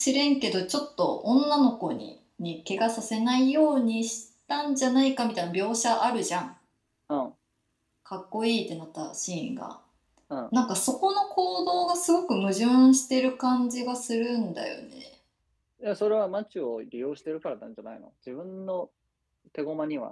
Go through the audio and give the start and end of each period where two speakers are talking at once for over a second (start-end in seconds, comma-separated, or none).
none